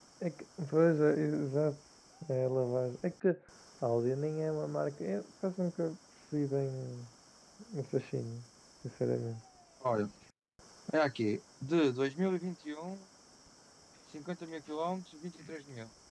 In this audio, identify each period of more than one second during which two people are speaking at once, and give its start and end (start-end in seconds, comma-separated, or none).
none